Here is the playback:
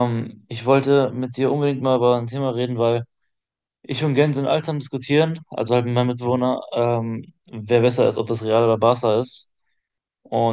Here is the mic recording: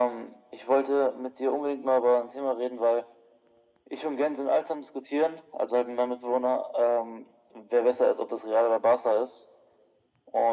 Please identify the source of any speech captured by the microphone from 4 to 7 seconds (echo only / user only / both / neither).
echo only